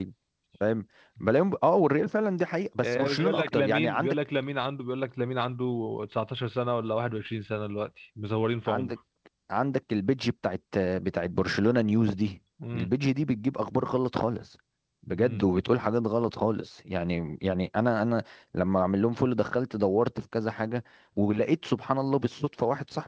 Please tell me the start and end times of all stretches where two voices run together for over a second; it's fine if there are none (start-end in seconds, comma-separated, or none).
2.8-4.2